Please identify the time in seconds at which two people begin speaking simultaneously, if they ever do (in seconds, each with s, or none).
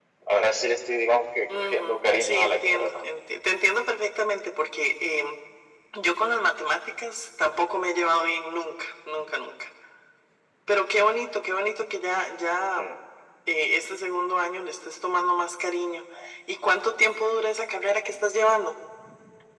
1.5 s